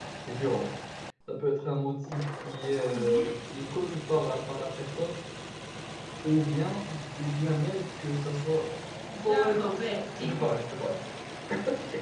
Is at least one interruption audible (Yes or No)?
Yes